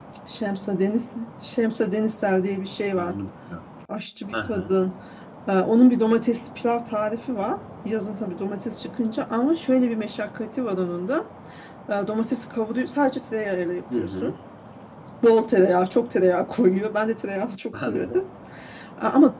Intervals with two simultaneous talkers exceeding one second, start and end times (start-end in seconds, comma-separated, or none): none